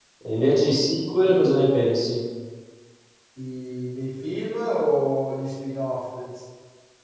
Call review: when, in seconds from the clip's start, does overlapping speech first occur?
none

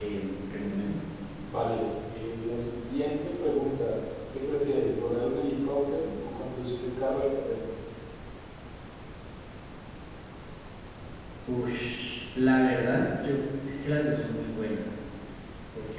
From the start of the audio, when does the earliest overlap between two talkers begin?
none

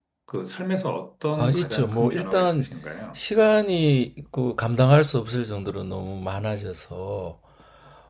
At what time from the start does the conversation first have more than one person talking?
1 s

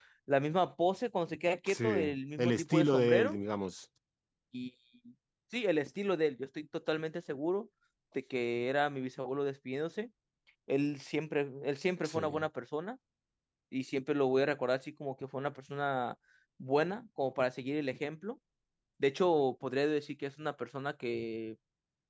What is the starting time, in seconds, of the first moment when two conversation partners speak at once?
2 s

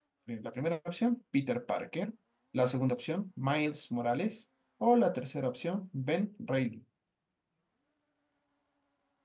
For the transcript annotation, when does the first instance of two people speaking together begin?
none

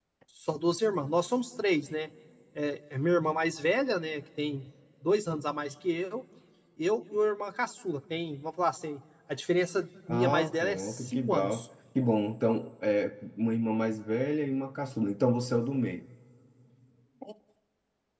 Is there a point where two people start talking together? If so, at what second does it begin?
10 s

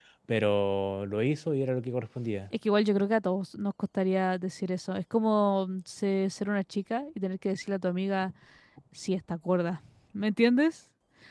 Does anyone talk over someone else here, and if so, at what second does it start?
none

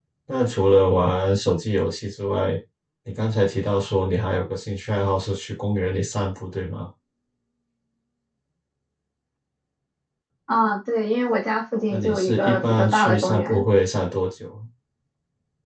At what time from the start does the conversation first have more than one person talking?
12 s

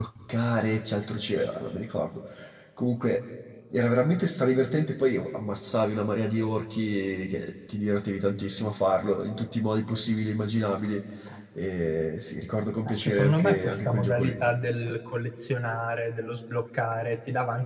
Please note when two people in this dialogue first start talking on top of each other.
13 s

